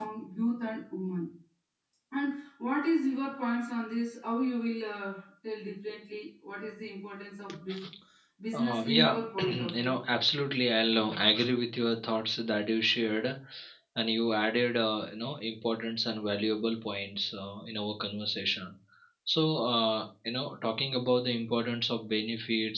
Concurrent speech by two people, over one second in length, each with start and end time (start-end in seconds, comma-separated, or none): 8.5-9.9